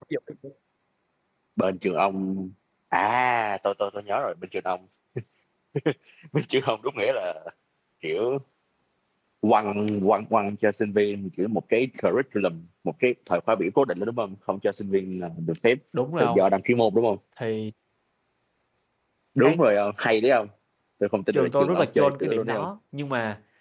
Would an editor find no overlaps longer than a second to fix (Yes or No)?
No